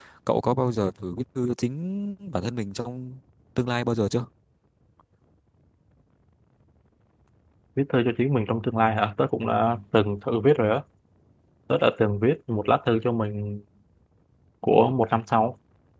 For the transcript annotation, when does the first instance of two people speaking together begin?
none

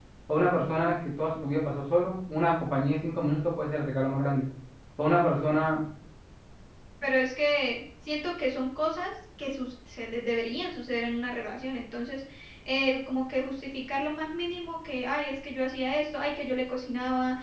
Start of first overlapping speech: none

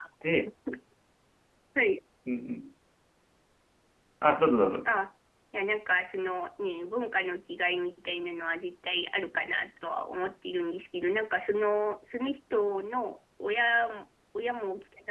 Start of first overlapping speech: none

